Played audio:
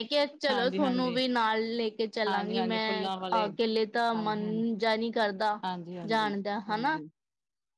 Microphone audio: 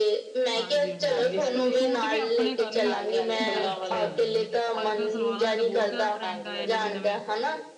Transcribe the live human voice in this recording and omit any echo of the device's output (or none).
ਹਾਂਜੀ-ਹਾਂਜੀ ਸਟੂ ਸੂਟ ਵੀ ਆਪਣੇ ਕਲ ਅੱਛਾ ਨ, ਅੱਜ-ਕੱਲ ਸਲਵਾਰਾਂ ਦੇ ਤਾਂ ਬੋਤ ਜ਼ਆਦਾ ਟਰੈਂਡ ਆਏ ਨਵੇਂ-ਨਵੇਂ।